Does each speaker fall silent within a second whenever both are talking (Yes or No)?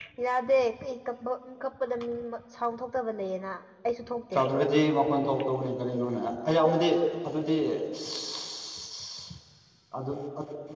Yes